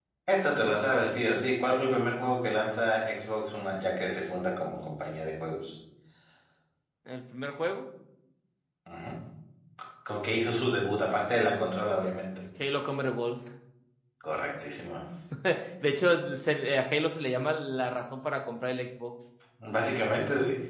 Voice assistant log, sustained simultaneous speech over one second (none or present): none